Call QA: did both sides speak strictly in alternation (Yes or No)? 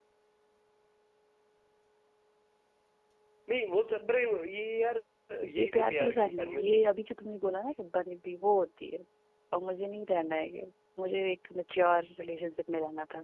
No